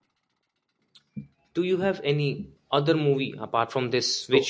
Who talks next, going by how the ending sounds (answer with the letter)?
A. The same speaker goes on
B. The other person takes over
A